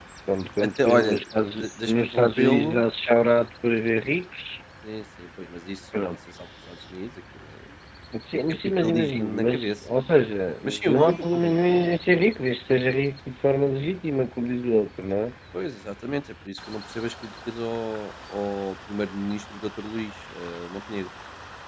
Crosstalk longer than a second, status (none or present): present